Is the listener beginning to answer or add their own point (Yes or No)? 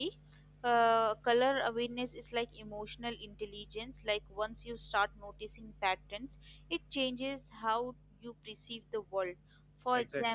Yes